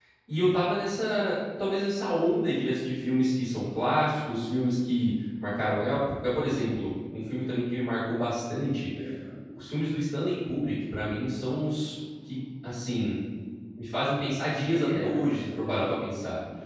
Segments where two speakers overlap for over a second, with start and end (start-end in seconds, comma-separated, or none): 14.5-15.9